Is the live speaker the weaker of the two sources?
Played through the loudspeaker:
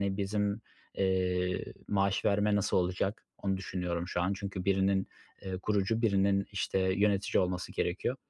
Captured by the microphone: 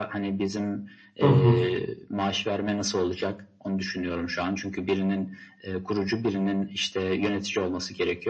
No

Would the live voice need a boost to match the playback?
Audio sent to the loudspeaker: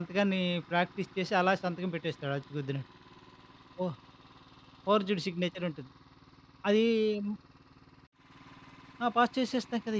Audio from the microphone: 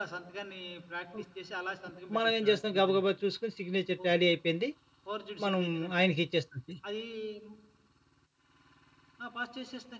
No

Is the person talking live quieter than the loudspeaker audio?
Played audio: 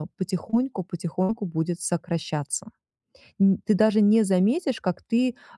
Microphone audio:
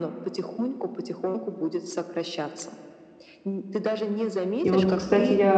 No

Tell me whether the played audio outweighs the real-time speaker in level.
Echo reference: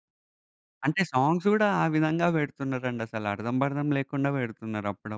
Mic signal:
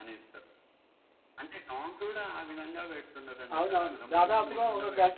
No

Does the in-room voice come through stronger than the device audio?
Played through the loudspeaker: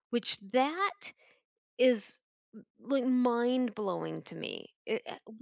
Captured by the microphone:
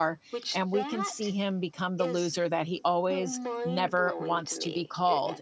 Yes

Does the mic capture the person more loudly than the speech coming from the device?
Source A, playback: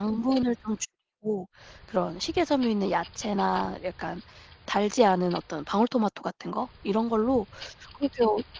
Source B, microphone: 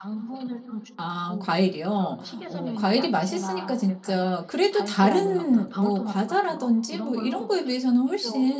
Yes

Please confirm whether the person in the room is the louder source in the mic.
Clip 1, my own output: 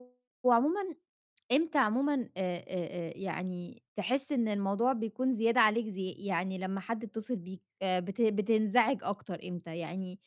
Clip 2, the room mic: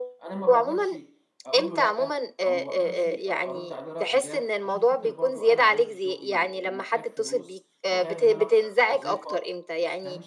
No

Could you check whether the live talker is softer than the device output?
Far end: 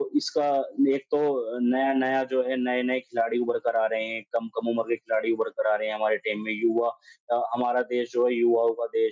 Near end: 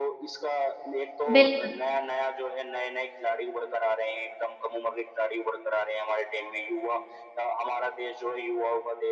No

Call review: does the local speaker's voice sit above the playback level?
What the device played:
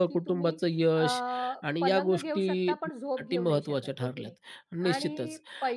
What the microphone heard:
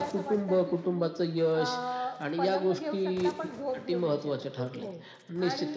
No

